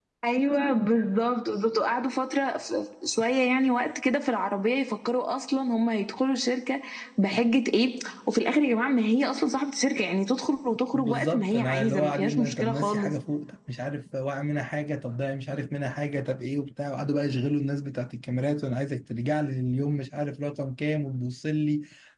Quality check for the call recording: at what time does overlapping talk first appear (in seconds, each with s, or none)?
10.9 s